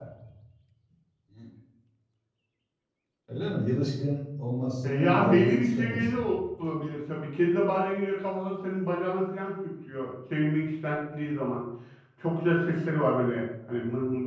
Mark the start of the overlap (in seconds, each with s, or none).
4.8 s